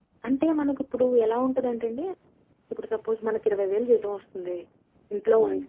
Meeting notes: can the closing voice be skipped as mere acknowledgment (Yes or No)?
Yes